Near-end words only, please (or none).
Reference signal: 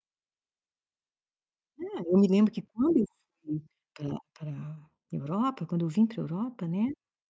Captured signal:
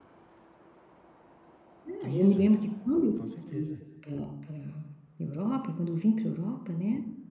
Isso, com certeza.